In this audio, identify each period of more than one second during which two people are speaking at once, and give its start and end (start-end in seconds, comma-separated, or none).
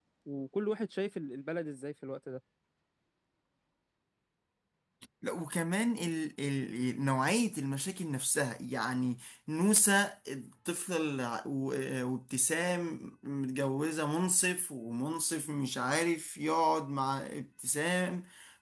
none